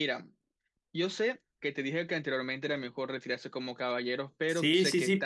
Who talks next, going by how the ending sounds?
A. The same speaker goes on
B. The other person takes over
B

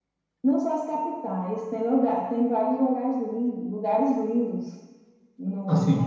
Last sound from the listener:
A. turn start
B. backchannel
A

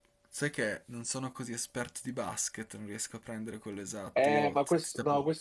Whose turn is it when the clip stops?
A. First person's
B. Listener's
B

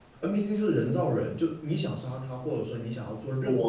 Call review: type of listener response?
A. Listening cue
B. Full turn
A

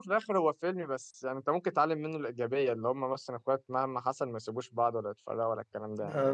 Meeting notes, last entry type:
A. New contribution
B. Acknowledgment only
A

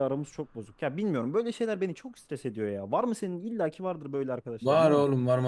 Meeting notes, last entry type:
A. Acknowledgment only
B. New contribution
B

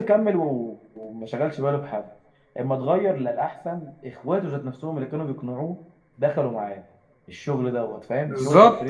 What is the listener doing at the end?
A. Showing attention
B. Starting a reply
B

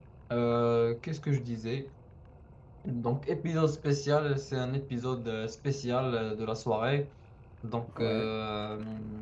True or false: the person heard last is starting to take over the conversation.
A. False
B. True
A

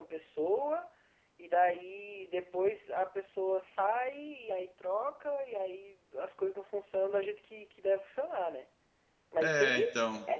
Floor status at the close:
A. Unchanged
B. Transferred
A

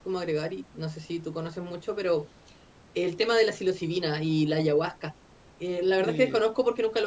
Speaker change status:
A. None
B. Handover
A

